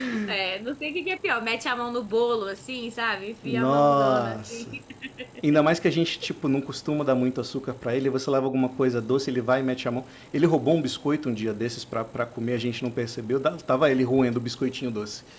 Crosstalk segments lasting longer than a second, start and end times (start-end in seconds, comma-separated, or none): 3.4-4.8